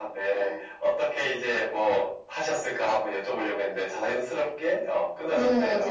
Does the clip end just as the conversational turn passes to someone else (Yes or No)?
Yes